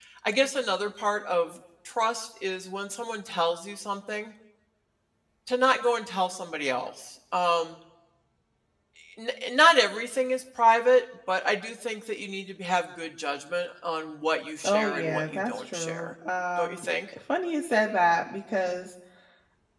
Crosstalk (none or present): present